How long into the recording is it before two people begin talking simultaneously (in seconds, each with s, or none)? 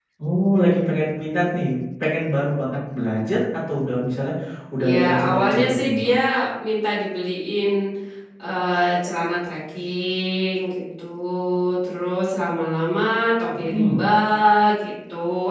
4.9 s